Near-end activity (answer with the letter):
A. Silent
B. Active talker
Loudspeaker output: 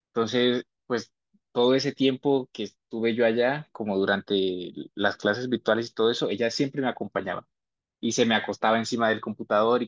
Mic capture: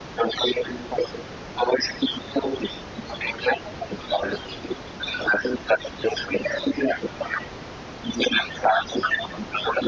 A